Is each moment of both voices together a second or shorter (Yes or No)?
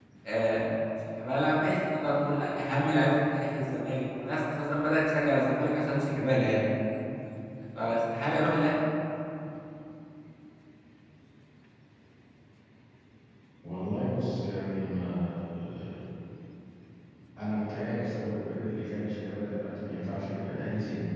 Yes